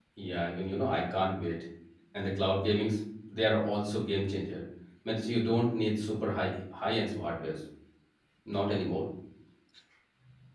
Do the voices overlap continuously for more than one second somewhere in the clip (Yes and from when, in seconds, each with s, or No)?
No